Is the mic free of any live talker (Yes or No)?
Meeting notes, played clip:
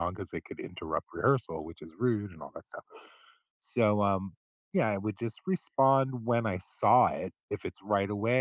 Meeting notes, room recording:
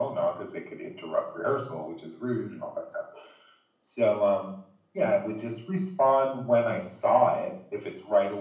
Yes